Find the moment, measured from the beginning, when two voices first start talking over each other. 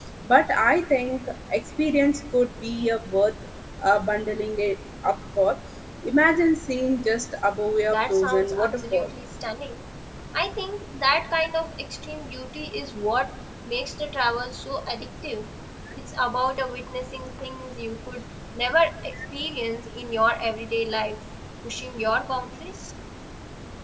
8 s

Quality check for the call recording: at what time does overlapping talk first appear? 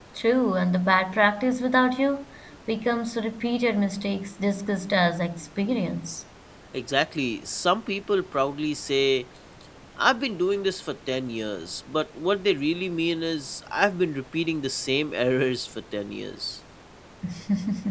none

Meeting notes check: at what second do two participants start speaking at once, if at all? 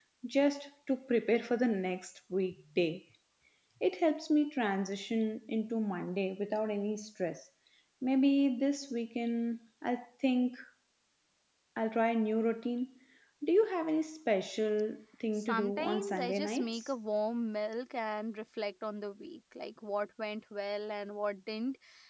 15 s

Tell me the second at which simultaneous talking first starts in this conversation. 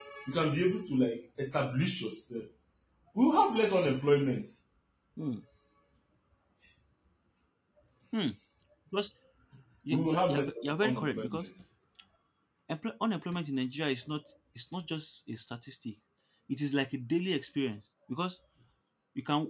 10 s

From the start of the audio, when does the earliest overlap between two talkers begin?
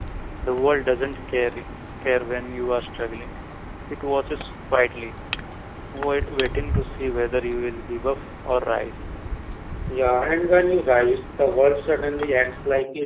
none

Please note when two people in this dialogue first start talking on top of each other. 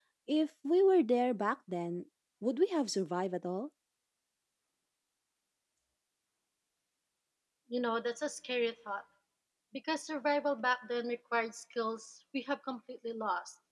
none

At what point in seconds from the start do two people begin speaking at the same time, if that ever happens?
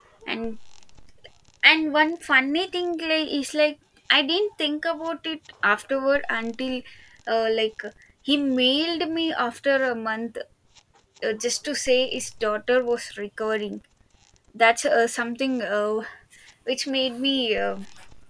none

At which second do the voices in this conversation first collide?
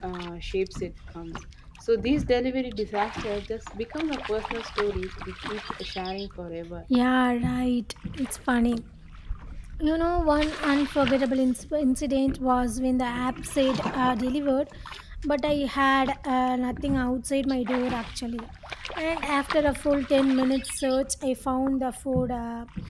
none

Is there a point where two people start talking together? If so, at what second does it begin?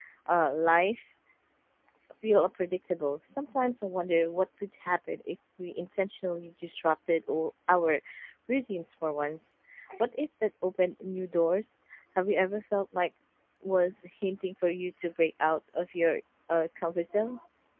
none

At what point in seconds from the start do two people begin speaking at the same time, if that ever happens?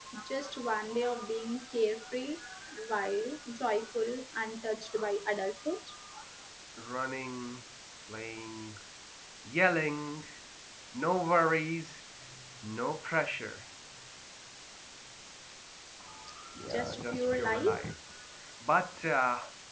17 s

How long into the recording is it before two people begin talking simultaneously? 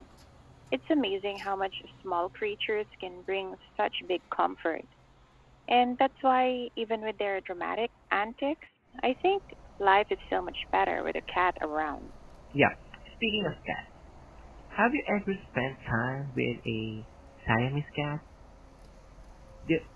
none

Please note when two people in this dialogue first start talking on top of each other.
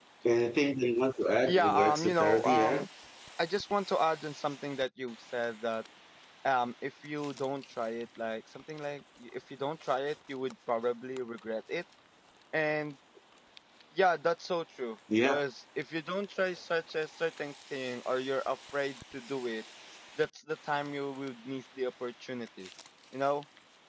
1 s

